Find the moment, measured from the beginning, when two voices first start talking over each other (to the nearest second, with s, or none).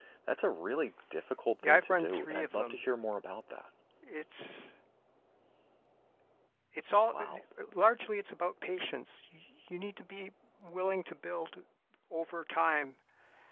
2 s